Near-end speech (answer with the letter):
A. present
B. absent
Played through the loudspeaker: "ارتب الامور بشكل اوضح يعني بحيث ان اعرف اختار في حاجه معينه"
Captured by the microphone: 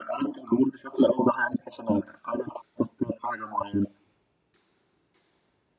B